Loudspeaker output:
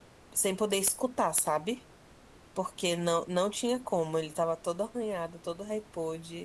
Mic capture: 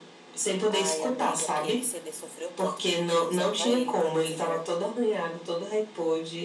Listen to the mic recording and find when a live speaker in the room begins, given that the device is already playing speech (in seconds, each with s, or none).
0.7 s